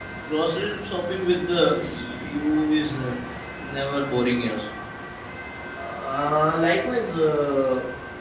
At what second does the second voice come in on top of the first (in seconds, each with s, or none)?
none